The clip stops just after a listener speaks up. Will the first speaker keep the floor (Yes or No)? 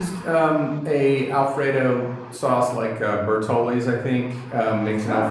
Yes